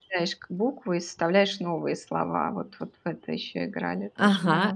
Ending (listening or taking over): taking over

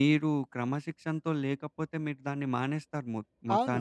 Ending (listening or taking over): taking over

